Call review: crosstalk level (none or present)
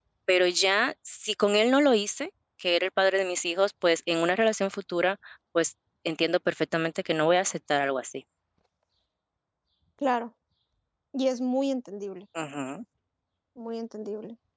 none